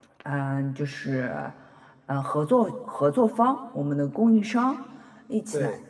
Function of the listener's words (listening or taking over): listening